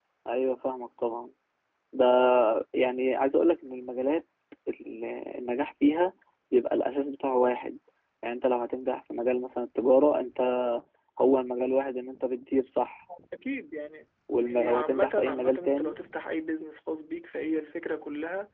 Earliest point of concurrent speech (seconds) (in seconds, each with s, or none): 14.3 s